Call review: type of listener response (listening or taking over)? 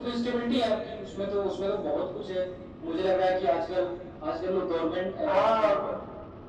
taking over